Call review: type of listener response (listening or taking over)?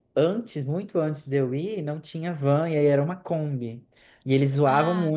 listening